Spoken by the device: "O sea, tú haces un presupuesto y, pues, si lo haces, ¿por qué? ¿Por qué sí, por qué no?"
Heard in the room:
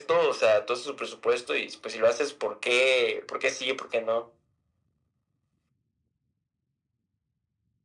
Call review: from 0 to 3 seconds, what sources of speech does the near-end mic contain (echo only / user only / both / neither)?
echo only